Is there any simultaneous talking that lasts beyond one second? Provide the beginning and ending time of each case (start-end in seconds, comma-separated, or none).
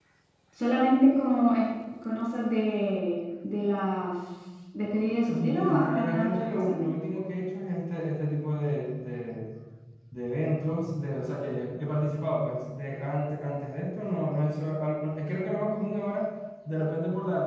5.2-6.7